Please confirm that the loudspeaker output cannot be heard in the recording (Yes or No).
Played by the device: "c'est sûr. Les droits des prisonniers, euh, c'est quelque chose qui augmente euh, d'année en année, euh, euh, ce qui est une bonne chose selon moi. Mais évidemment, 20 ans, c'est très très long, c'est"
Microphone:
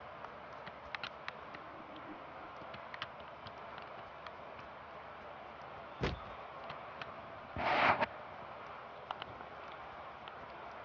Yes